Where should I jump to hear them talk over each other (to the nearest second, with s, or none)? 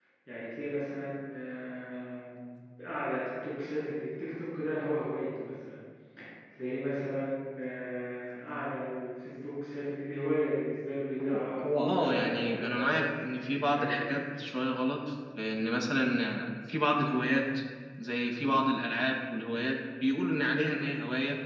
11 s